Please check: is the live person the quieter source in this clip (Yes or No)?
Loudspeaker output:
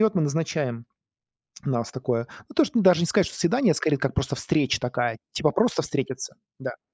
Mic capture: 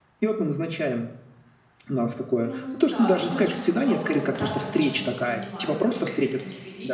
Yes